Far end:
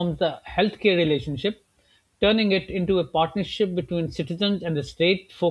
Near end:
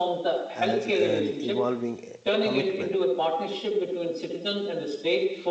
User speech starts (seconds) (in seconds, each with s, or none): 0.5 s